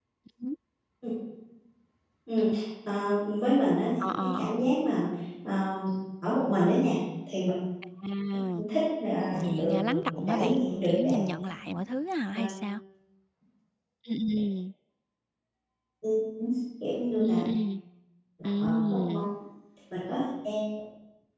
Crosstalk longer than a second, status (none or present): present